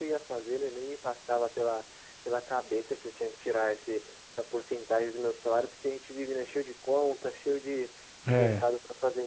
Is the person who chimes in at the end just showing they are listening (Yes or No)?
Yes